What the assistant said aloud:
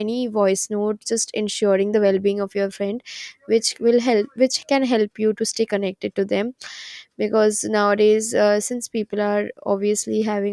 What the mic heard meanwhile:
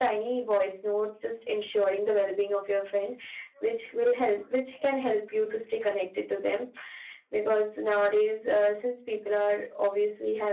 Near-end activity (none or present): none